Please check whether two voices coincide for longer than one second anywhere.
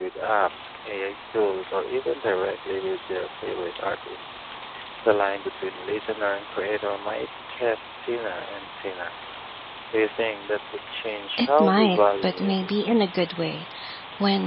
Yes, from 11.4 s

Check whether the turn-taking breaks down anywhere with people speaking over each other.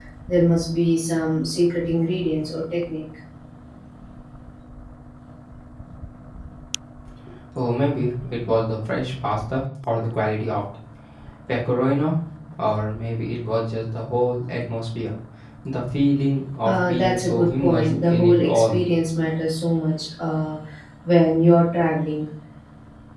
Yes, from 16.6 s

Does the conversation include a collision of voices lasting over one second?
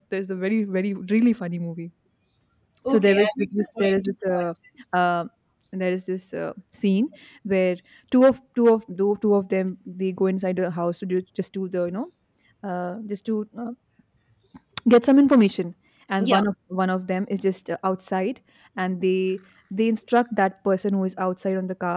Yes, from 2.9 s

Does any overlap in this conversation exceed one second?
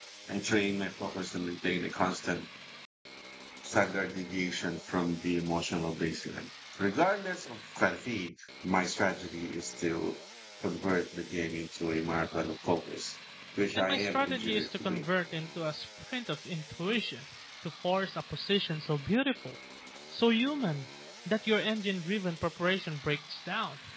Yes, from 13.8 s

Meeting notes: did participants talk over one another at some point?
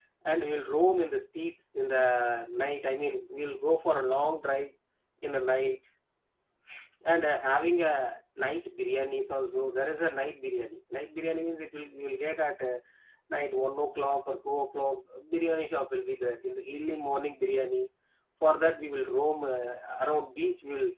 No

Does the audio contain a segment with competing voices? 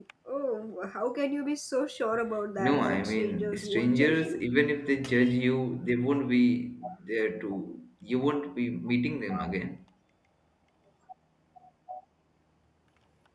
Yes, from 2.6 s

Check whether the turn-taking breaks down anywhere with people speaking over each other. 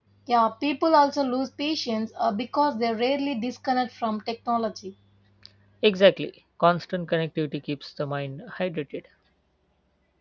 No

